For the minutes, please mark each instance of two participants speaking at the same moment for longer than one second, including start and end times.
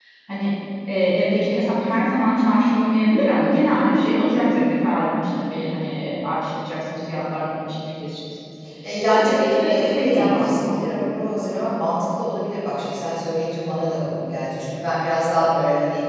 9.1-10.8

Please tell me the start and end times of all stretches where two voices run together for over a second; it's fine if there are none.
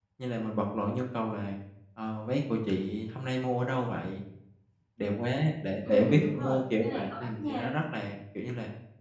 5.8-7.7

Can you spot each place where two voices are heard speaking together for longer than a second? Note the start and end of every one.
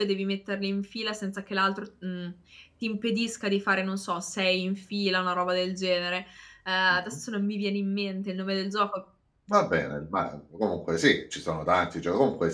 none

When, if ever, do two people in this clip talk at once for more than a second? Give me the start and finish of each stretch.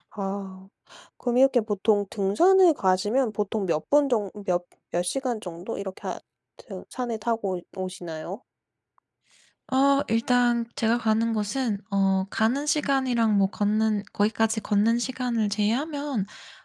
none

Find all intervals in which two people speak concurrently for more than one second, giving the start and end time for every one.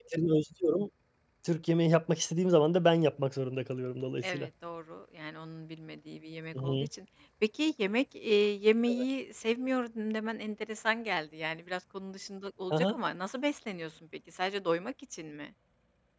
none

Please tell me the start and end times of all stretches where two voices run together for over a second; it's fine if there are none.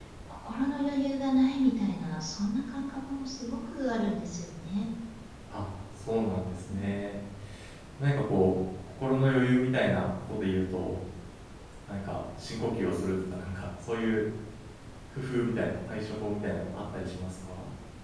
none

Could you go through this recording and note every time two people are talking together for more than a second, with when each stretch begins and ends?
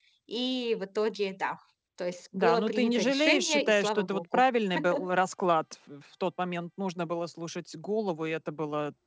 2.3-4.4

